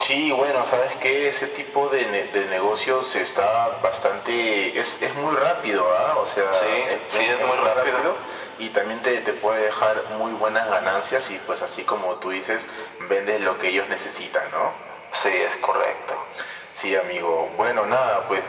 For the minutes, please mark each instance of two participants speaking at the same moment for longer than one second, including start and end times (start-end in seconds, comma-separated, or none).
6.5-8.1